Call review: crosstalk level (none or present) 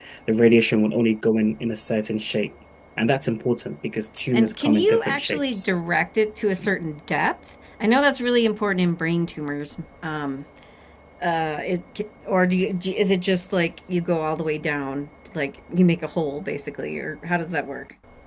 present